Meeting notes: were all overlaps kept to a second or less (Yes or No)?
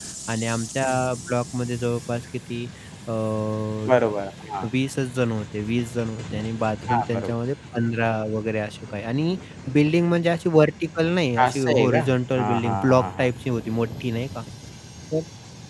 No